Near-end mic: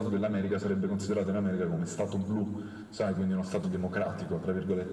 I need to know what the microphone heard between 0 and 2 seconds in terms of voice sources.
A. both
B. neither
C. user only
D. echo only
D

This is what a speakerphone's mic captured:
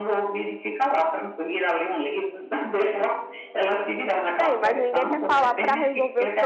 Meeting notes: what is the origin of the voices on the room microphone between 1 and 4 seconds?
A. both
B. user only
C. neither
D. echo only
D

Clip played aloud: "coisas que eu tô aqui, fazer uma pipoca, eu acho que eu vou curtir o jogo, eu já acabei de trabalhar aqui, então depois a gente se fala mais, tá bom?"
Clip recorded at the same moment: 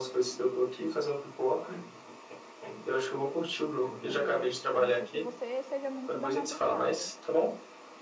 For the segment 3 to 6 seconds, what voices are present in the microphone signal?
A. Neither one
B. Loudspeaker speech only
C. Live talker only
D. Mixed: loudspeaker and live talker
D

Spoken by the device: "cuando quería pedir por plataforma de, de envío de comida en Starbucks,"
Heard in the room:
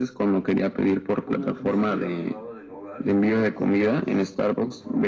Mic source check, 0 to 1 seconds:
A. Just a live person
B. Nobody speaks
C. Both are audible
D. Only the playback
D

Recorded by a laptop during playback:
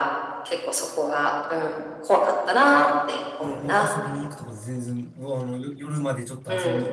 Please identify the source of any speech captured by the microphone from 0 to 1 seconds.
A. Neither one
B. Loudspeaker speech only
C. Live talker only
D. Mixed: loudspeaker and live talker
B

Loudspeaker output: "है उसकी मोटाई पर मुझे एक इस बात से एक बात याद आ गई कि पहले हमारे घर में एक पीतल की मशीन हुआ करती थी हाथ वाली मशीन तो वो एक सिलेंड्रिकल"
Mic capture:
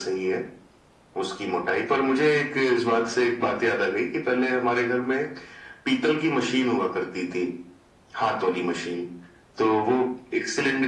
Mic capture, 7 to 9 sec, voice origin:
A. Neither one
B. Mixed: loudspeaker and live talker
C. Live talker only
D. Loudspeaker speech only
D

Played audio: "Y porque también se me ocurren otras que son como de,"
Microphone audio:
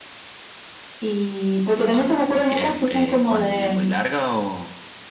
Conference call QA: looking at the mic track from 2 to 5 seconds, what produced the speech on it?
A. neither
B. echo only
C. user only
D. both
D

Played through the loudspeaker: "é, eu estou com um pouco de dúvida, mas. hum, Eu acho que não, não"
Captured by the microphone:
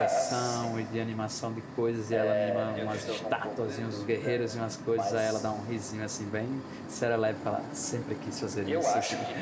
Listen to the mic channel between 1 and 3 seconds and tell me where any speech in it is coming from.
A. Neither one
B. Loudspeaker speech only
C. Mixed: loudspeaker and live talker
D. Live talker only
C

